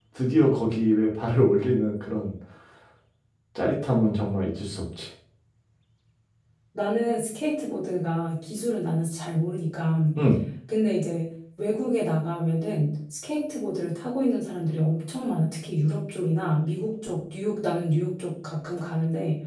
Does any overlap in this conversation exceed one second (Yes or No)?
No